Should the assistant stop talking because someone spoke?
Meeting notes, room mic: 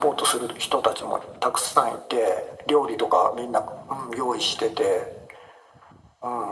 No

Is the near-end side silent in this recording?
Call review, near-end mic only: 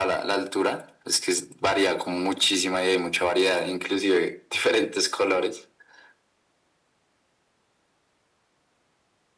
Yes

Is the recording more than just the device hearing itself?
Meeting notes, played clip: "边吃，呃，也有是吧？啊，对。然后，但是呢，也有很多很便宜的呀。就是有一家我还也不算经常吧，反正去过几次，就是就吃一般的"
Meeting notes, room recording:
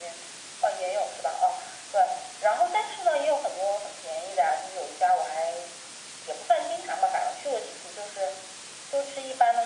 No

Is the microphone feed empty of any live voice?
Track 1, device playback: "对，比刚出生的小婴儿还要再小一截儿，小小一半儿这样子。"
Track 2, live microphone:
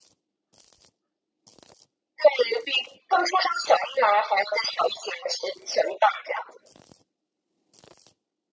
Yes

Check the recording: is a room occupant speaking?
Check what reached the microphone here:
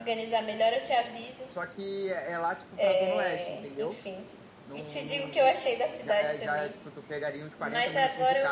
Yes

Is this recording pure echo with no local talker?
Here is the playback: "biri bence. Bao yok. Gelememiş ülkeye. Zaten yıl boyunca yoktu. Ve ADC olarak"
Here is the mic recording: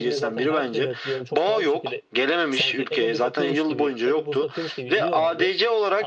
No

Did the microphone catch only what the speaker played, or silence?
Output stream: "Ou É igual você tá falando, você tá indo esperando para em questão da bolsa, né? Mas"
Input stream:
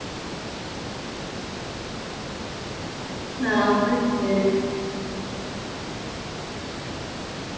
No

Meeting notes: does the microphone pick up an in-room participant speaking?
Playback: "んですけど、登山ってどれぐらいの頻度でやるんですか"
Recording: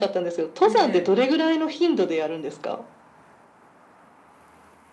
Yes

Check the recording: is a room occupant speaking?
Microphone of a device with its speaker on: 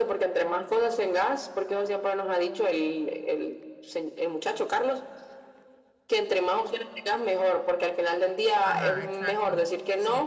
Yes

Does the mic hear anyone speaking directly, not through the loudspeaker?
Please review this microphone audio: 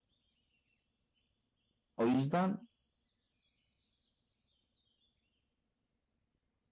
Yes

